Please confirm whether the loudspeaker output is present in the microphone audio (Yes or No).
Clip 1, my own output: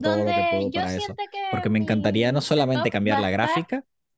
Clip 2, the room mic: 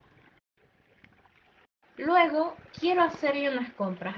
No